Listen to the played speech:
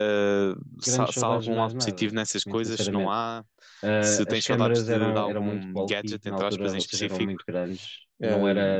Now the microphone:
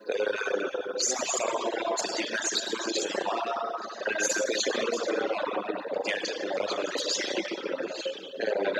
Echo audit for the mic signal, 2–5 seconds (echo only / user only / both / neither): echo only